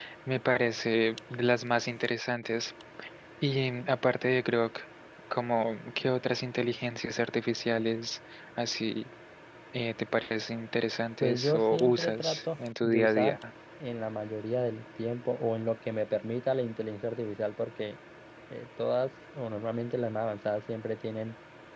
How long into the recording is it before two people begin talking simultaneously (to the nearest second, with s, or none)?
11 s